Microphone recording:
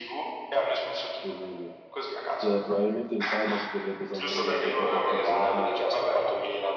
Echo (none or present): present